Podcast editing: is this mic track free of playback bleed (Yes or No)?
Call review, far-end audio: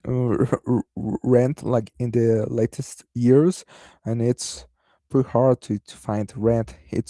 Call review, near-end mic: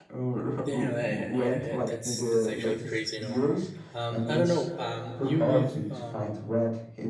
No